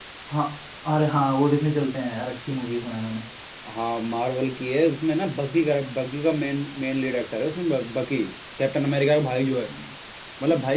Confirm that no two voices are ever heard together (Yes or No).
Yes